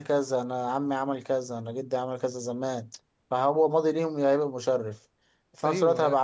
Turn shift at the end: No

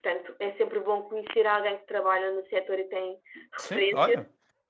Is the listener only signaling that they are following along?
No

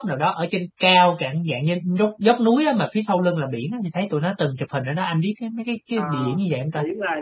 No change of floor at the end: No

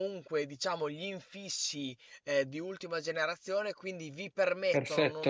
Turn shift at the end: No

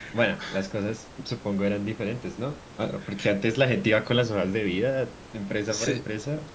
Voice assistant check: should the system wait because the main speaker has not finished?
No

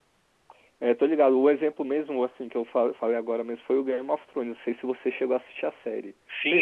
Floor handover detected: Yes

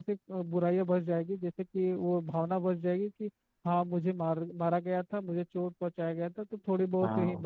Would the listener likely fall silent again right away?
Yes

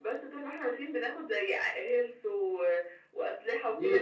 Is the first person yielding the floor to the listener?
Yes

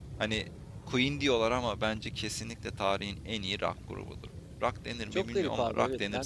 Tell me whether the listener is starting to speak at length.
Yes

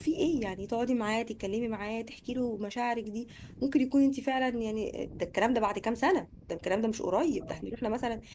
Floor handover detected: No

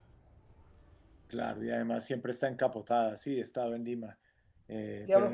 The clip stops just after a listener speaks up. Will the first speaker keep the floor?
No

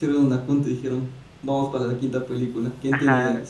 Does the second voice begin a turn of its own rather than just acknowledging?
Yes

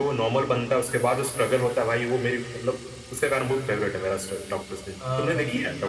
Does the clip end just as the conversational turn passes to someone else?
Yes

